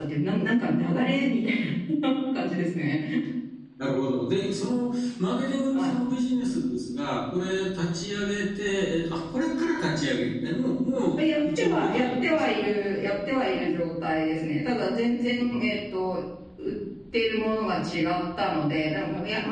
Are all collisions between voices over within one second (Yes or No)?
No